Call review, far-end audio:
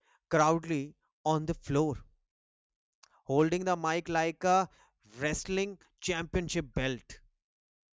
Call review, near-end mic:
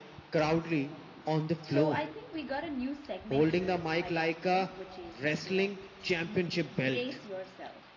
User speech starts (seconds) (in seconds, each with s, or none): 1.6 s